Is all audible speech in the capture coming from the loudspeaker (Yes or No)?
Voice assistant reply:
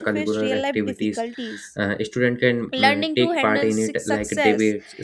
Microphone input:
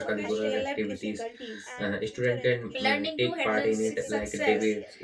No